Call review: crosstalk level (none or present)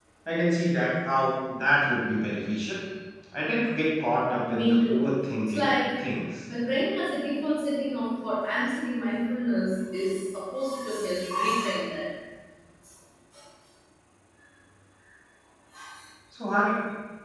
present